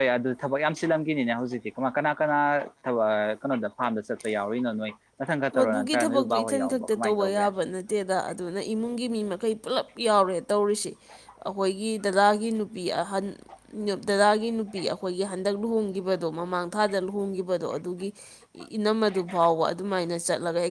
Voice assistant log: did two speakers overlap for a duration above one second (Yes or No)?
Yes